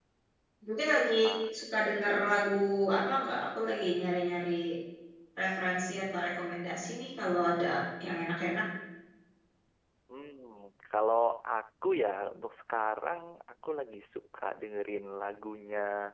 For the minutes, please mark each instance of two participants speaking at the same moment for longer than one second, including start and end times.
none

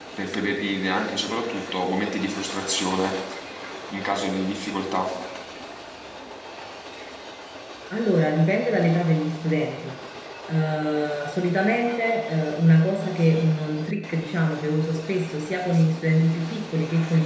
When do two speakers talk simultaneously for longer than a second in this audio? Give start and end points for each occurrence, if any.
none

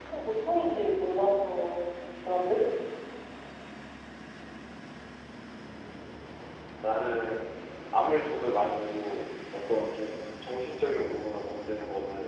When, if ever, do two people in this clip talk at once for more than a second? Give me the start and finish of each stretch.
none

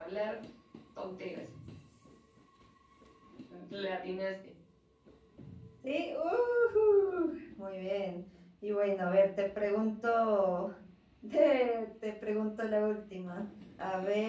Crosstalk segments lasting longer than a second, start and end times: none

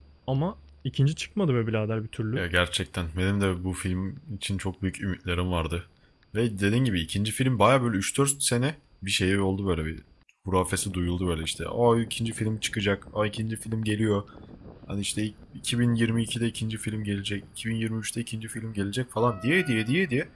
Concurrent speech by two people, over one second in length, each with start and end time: none

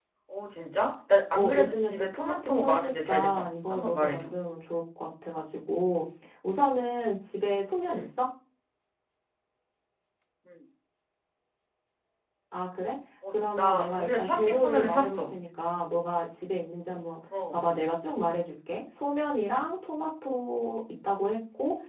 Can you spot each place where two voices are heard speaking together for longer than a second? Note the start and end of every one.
1.3-4.3, 13.3-15.4

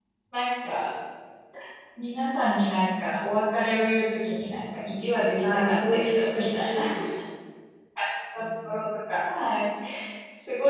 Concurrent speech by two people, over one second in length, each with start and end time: 5.4-6.8

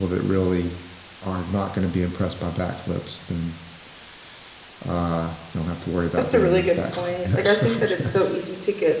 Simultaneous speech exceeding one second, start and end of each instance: 6.2-8.3

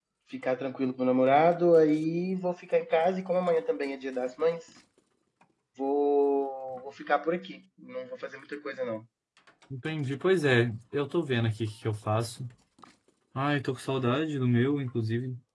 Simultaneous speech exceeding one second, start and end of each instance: none

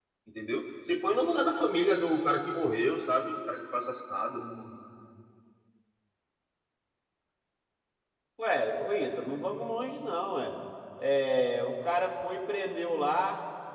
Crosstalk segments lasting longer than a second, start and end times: none

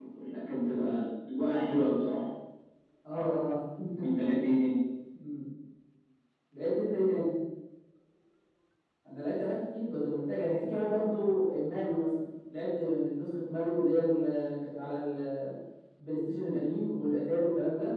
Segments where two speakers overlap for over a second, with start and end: none

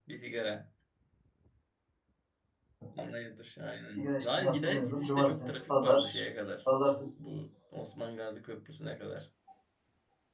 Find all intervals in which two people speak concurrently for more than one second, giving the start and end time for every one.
3.9-6.1

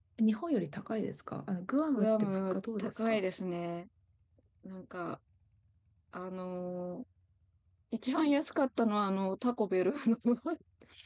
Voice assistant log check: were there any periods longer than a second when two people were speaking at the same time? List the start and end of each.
1.9-3.2

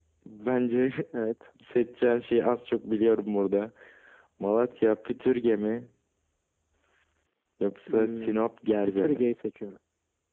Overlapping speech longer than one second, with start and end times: none

